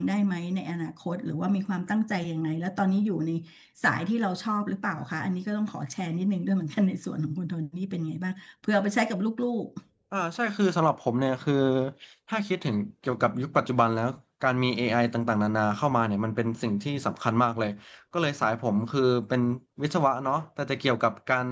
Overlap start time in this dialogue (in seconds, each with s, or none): none